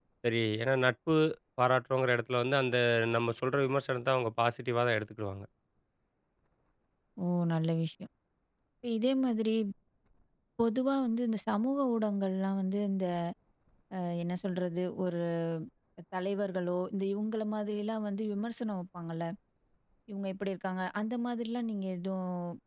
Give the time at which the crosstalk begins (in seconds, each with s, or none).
none